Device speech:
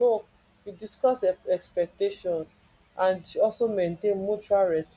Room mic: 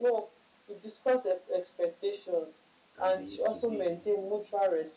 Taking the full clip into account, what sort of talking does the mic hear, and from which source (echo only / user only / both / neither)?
both